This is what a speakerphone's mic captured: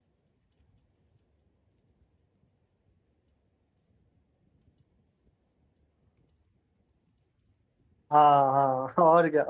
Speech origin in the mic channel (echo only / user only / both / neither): user only